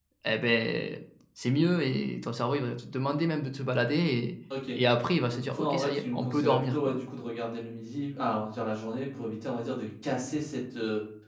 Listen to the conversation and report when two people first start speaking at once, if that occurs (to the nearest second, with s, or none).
5 s